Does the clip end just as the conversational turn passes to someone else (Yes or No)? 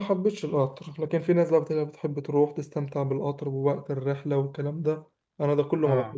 No